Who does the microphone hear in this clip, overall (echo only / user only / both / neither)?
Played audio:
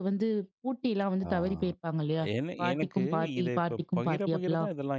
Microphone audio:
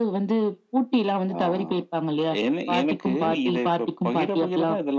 echo only